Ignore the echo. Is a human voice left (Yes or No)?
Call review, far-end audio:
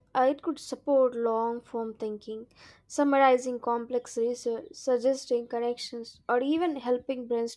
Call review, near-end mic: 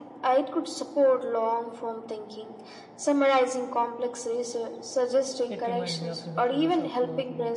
Yes